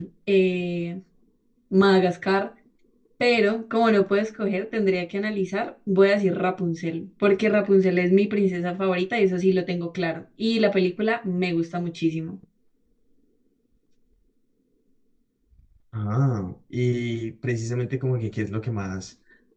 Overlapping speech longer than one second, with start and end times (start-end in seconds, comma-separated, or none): none